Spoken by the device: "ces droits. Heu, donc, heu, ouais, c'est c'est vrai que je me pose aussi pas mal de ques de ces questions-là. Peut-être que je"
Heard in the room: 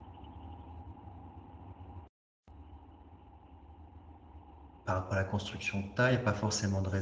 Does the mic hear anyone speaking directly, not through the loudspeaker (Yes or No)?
Yes